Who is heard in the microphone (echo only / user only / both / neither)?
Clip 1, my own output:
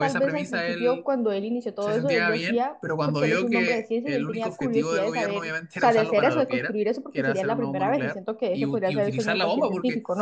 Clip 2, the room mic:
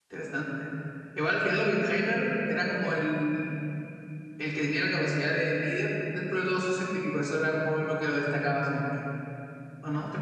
user only